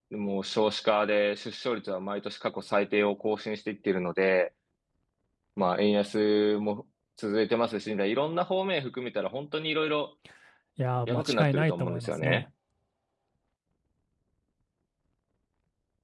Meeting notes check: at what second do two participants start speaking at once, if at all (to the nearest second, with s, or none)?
11 s